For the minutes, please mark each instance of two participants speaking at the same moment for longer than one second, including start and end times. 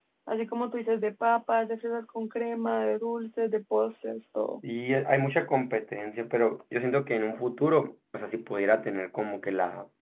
none

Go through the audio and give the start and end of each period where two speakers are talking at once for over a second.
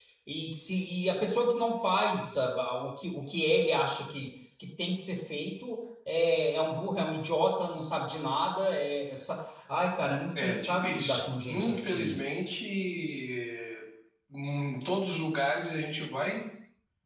10.4-12.2

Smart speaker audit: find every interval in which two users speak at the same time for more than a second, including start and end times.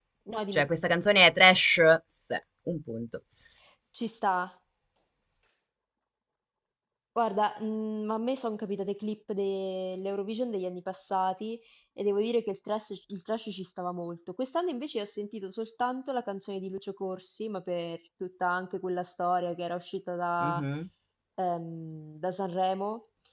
none

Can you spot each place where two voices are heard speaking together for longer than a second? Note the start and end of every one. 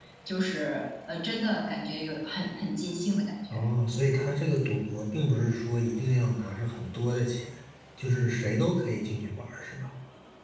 none

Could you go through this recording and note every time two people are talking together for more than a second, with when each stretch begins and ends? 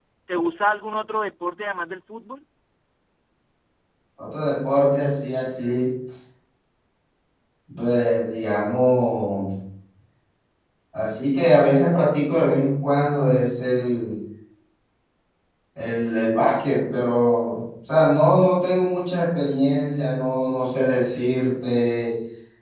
none

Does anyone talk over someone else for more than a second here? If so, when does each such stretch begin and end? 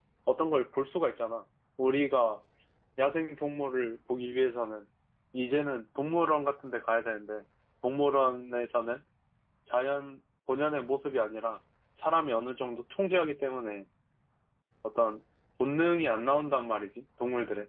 none

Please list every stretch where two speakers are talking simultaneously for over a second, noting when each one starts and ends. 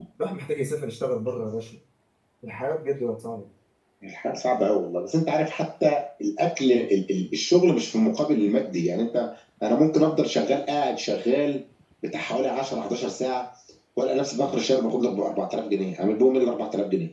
none

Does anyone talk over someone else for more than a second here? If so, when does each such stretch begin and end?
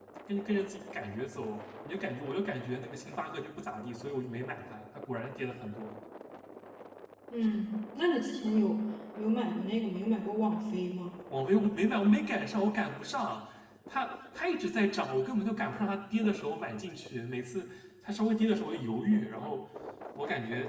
none

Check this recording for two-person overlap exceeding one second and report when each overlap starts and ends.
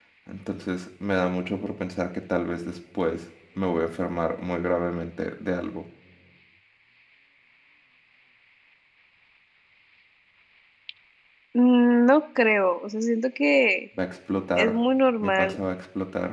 none

